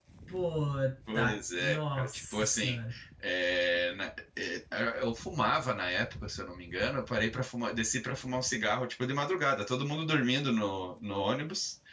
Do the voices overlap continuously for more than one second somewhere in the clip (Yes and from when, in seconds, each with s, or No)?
Yes, from 1.1 s